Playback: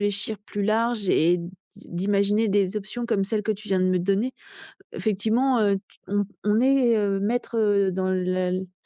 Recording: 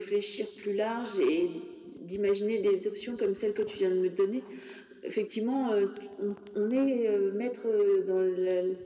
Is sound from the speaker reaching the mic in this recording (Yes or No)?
Yes